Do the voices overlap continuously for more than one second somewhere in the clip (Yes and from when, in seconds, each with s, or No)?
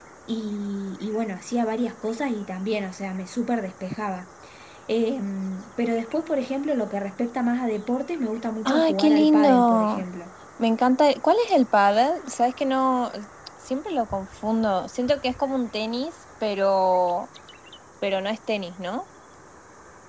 Yes, from 8.7 s